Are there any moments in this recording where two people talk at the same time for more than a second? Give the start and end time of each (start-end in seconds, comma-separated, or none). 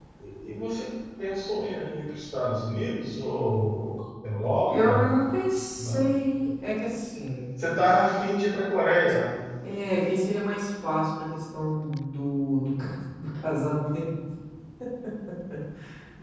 none